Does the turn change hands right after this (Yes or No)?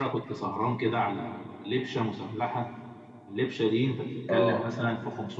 No